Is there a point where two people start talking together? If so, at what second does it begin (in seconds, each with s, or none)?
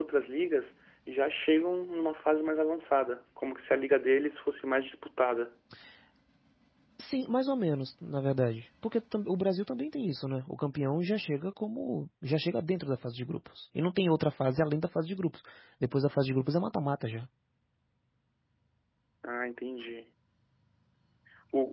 none